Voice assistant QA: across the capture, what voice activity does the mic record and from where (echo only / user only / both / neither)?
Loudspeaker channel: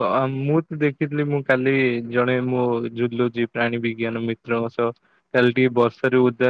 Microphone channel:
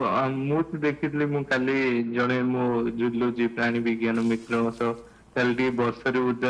echo only